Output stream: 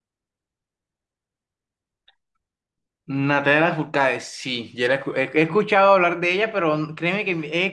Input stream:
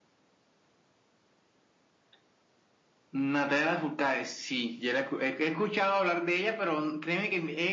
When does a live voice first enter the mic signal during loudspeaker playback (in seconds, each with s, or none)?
none